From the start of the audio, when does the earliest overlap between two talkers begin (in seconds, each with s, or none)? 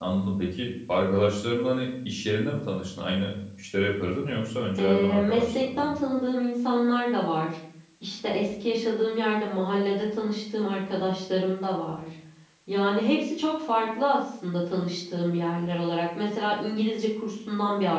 4.8 s